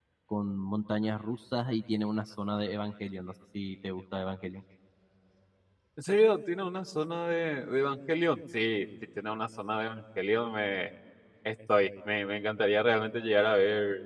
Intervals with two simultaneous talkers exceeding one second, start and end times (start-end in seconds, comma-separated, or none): none